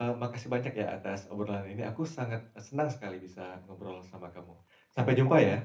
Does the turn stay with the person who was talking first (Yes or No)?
No